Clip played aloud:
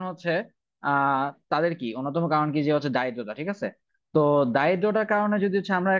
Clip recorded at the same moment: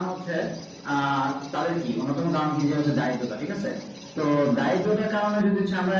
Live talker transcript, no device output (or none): none